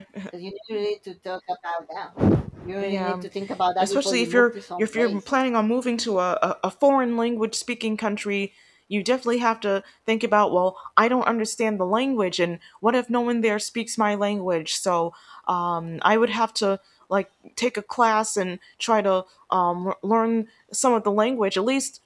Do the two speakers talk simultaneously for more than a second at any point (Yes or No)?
Yes